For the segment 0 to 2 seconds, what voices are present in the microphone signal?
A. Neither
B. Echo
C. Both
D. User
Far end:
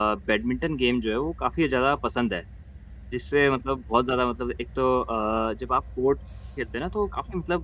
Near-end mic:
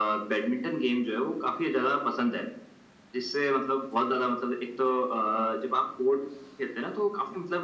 B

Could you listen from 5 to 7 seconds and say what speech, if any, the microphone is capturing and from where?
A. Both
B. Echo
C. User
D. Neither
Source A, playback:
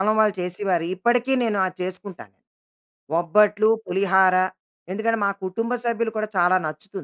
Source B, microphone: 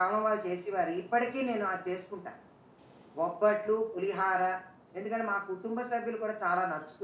B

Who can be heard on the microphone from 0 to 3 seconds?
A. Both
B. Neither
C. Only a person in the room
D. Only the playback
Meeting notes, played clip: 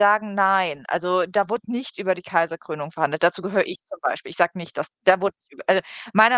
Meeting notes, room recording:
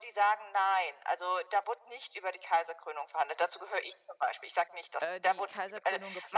D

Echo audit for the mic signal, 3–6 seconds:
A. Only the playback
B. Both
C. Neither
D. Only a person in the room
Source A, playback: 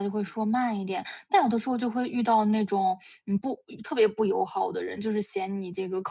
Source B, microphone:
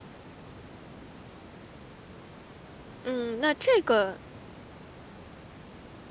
D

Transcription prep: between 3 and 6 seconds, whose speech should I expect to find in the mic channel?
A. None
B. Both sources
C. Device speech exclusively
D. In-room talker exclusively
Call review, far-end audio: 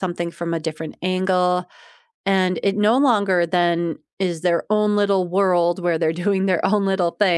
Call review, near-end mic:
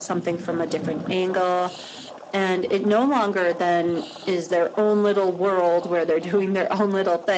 C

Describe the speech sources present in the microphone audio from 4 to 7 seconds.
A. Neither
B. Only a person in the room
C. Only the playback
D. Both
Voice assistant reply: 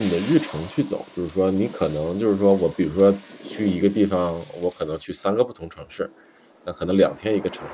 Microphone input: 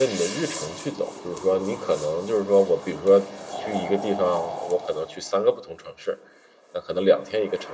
C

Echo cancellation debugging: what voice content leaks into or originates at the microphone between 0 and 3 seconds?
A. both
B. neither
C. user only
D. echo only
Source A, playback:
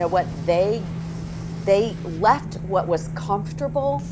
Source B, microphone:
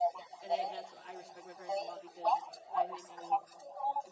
A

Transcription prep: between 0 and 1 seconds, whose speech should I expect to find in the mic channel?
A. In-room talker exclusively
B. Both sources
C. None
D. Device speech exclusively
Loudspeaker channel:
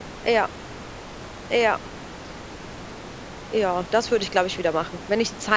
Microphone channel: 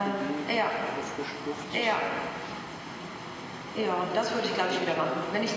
B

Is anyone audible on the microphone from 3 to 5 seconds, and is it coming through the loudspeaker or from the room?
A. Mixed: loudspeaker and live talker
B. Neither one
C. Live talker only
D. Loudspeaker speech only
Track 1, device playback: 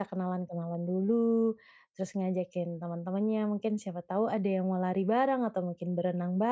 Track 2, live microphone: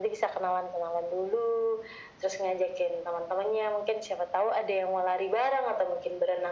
D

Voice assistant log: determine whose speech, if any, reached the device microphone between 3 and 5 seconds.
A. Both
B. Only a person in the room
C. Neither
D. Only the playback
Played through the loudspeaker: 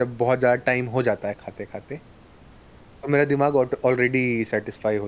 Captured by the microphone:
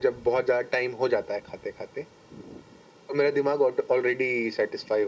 D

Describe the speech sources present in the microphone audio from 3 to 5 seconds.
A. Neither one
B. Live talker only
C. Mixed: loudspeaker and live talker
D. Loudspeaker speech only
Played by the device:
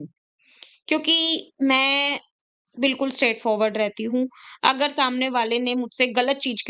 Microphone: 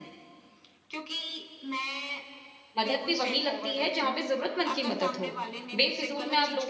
C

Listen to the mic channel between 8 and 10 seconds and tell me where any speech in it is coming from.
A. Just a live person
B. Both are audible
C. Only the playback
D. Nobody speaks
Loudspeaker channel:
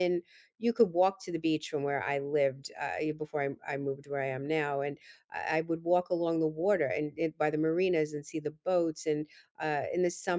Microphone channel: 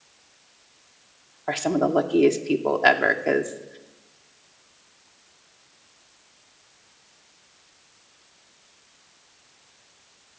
D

